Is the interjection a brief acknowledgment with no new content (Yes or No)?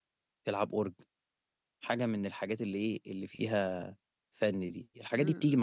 Yes